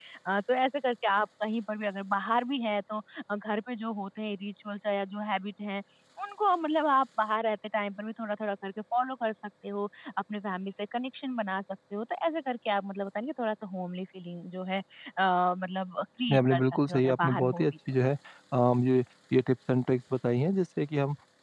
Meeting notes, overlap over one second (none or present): present